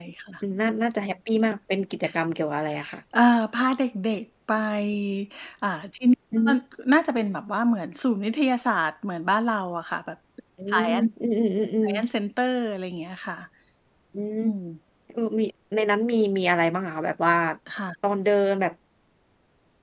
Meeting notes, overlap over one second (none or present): none